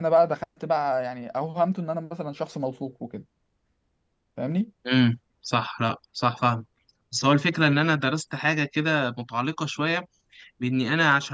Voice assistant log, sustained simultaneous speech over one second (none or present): none